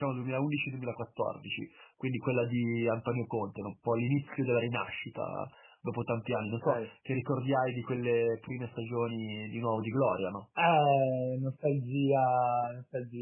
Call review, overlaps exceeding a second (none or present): none